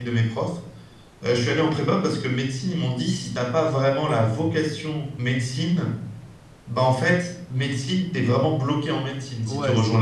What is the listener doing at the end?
taking over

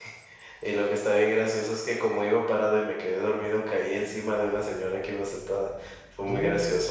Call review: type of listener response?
listening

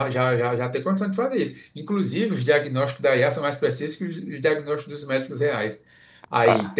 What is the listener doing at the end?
listening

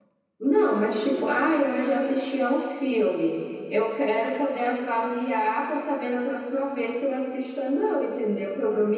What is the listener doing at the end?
listening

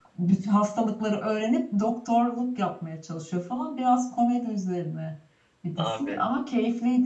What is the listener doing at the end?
listening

